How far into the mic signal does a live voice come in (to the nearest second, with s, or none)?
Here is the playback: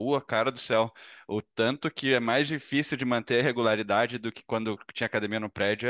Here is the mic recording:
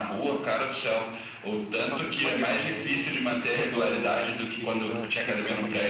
2 s